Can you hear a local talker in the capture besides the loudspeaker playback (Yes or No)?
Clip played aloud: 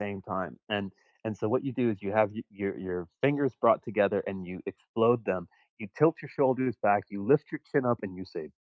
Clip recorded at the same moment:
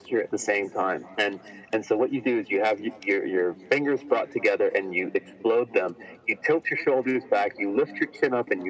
No